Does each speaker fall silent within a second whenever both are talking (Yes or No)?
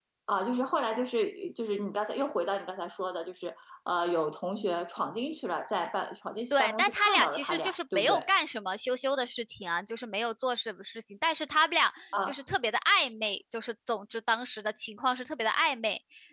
No